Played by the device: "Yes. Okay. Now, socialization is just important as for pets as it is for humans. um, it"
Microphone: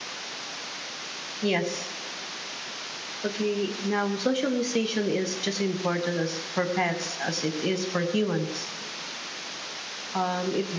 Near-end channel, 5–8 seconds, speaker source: echo only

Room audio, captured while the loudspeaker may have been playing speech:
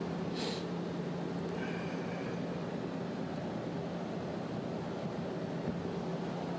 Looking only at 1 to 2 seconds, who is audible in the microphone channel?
neither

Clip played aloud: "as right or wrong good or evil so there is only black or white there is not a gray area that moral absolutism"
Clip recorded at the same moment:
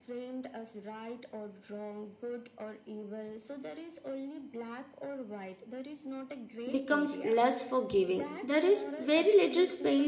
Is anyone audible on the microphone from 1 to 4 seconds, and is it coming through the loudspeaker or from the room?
echo only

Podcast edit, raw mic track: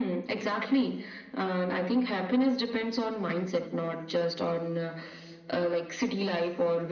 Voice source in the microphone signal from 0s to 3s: echo only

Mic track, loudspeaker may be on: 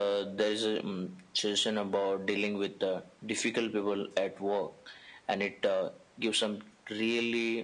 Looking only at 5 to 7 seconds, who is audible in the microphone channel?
echo only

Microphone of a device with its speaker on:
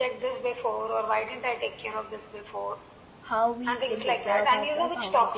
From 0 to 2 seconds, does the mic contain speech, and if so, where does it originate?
echo only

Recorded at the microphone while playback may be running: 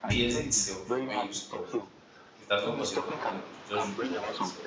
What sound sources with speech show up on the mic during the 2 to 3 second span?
both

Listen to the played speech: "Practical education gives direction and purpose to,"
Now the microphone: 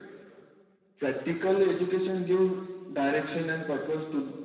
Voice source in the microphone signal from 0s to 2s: echo only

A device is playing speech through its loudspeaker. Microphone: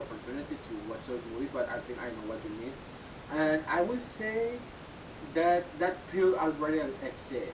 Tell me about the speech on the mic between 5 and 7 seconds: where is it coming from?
echo only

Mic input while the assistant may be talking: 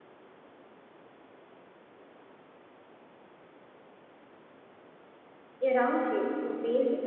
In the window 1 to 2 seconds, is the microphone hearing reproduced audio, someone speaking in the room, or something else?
neither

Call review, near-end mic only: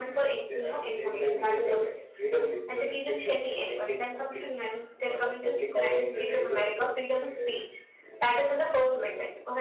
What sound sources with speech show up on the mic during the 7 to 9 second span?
both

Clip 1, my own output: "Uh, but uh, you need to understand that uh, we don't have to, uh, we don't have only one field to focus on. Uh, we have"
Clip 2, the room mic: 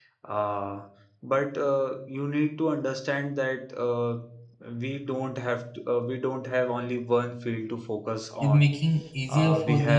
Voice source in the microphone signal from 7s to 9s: both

